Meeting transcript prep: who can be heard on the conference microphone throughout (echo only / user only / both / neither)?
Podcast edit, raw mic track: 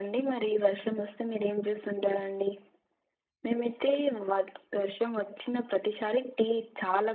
echo only